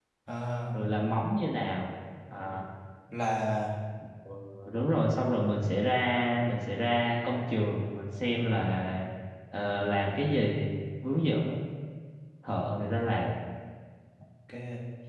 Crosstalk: none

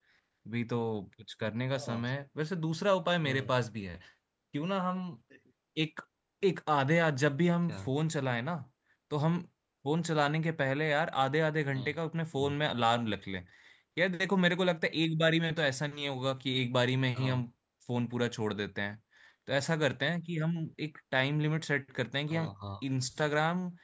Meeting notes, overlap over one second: none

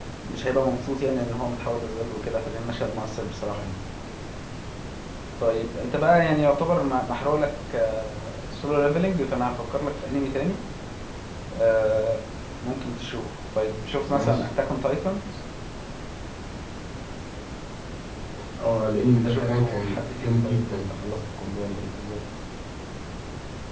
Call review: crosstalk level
present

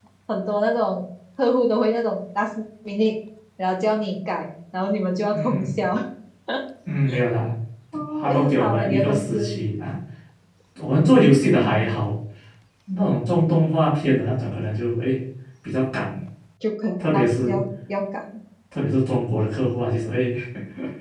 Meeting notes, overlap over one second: present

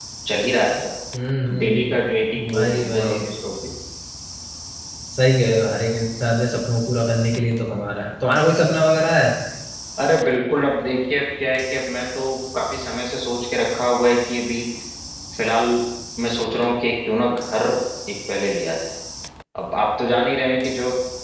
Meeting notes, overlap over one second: present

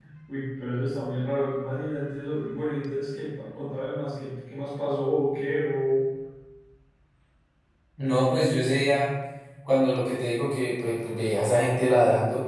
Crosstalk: none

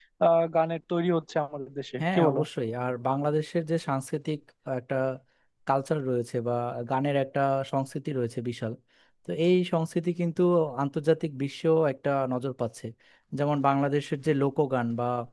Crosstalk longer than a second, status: none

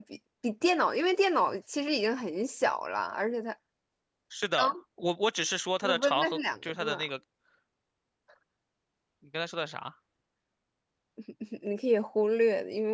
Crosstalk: present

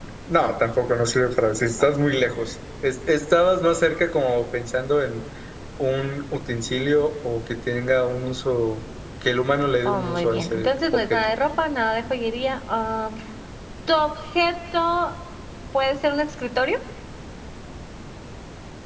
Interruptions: present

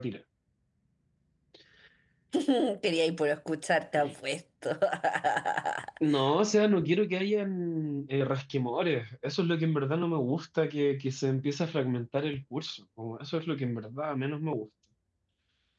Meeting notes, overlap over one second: none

